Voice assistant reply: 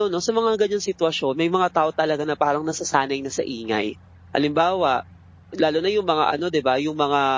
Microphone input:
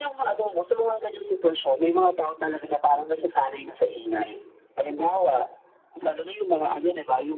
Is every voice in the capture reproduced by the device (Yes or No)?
Yes